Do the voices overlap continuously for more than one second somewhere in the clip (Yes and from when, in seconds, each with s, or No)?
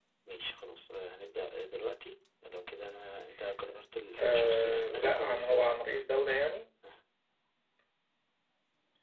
Yes, from 4.2 s